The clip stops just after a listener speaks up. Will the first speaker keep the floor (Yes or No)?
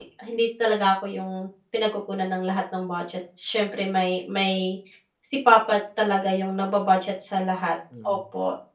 No